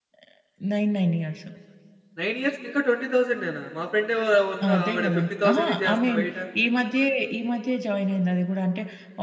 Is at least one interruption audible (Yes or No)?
Yes